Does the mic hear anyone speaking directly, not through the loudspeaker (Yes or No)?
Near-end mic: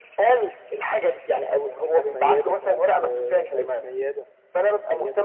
Yes